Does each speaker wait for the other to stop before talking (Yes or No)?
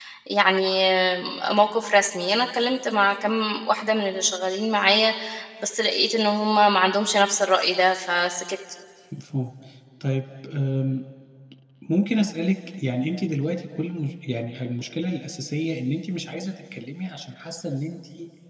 Yes